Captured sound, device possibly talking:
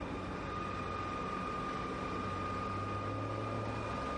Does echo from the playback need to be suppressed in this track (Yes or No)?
No